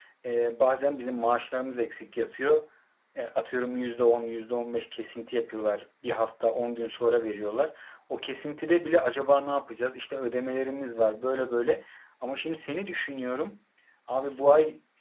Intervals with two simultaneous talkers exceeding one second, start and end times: none

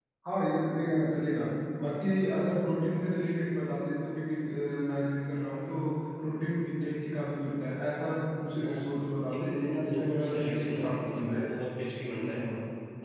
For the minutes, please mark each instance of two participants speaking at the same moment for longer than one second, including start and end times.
9.3-11.4

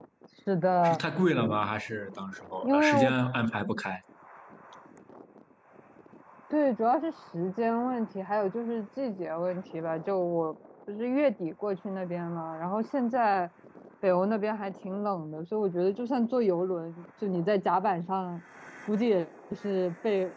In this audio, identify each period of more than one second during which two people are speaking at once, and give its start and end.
none

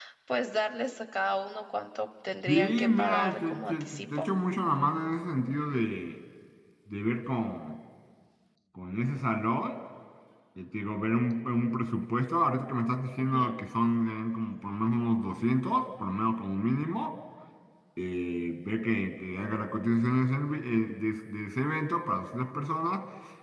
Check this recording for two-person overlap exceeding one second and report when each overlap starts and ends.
2.5-4.3

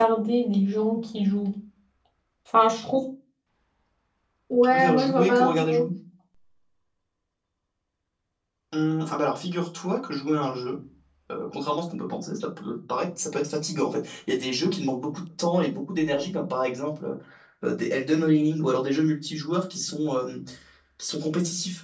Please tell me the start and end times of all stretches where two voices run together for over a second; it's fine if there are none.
4.6-5.8

